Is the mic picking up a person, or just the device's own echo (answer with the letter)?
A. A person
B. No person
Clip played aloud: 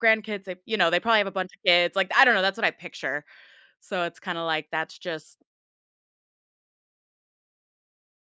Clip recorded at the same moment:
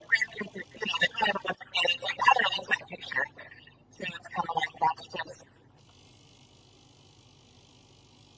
B